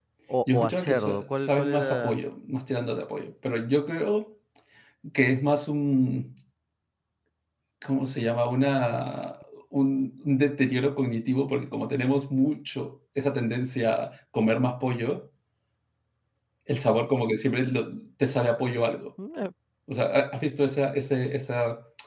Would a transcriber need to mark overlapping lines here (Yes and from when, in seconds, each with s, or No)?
Yes, from 0.5 s